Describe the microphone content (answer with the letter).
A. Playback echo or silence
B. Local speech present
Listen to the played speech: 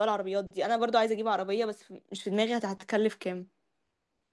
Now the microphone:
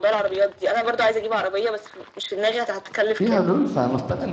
B